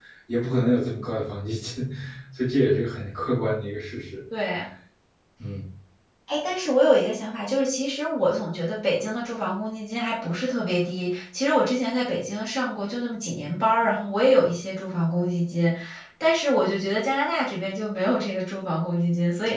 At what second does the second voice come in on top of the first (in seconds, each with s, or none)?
none